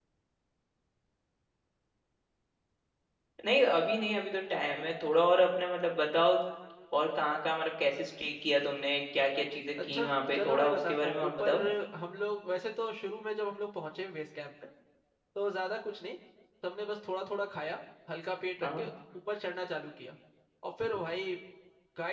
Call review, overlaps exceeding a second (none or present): present